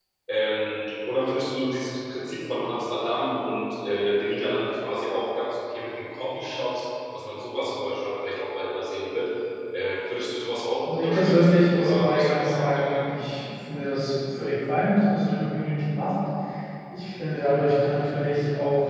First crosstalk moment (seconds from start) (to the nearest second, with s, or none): 11 s